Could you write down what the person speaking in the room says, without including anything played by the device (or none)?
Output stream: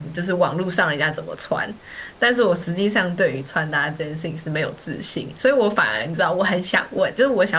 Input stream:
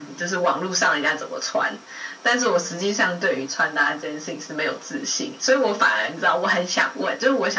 none